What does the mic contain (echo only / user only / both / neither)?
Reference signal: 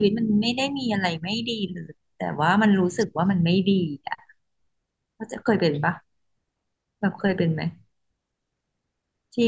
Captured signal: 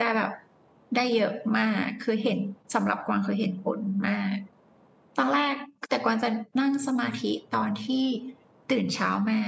user only